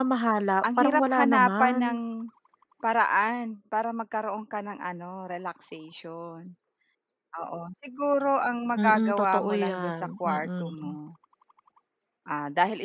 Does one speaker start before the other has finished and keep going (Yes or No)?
Yes